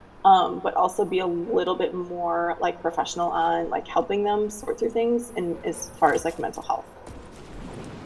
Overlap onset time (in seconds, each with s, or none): none